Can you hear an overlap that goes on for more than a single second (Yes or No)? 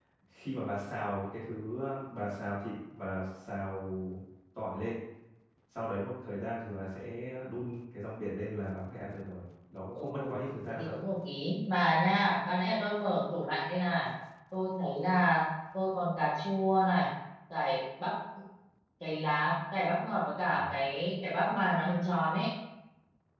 No